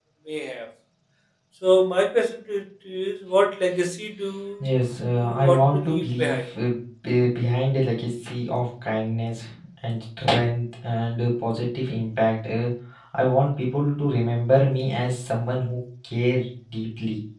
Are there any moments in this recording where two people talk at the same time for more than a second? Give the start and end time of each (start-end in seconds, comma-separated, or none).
5.2-6.4